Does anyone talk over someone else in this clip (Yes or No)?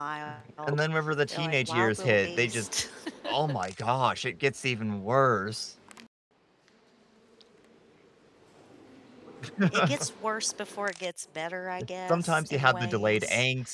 Yes